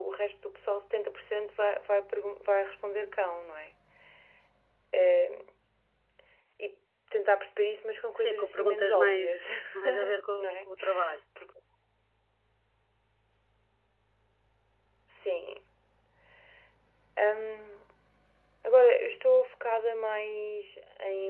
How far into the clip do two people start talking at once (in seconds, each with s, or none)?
8.2 s